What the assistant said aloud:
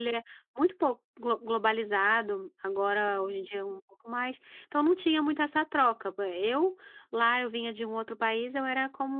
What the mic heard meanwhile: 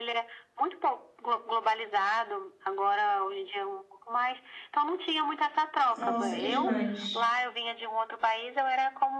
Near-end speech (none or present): present